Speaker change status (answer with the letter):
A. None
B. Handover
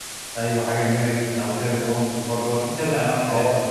B